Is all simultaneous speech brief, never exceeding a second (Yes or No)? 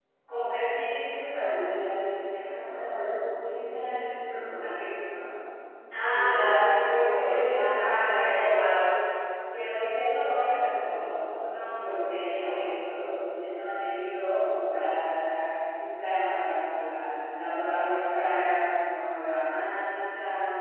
No